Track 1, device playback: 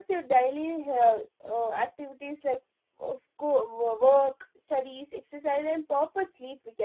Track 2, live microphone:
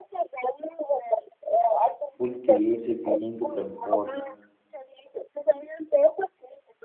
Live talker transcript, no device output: food creates a feeling to comfort

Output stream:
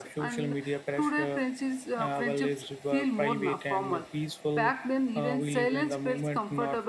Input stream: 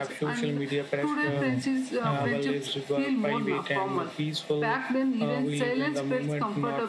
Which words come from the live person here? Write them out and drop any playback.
Hmm. Hmm.

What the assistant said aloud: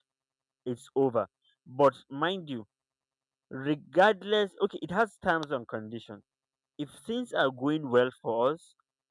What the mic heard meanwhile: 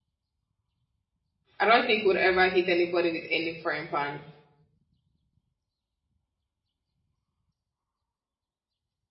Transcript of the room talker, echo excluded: I don't think we'll ever hit anybody with any frying pan

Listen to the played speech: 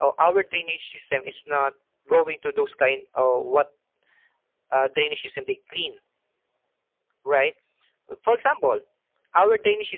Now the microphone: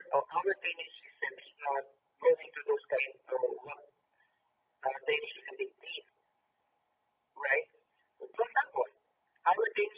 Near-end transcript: none

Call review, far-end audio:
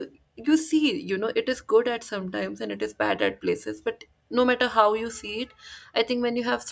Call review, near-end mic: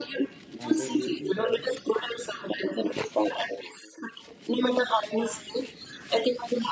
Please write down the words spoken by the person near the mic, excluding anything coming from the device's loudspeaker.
And they knew each other

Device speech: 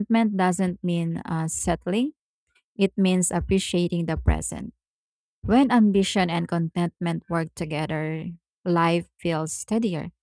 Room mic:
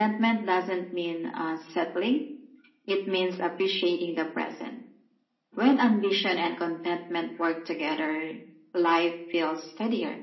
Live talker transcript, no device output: none

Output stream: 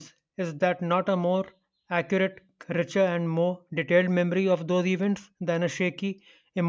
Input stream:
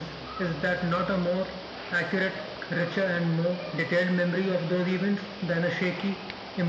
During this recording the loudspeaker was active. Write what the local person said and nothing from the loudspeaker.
none

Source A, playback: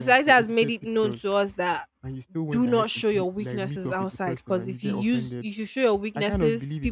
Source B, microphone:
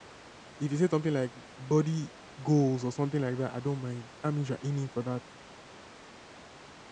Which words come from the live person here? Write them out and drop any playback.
If you say something like body goals or something like that, I don't mind. That means you're aiming for that.

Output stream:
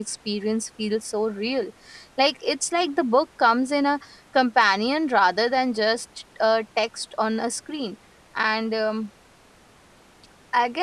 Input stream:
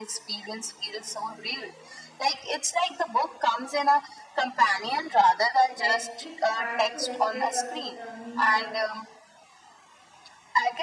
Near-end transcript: like it's hard to escape uh, so, uh, means uh,

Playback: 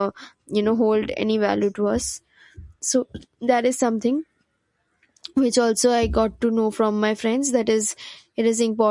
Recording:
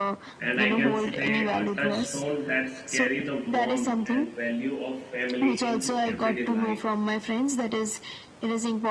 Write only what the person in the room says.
And I can say a touchstone that's carry the warmth and value of family into everyday life.

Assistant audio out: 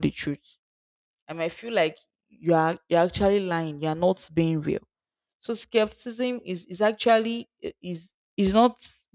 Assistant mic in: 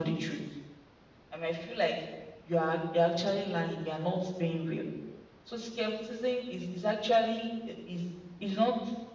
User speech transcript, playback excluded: none

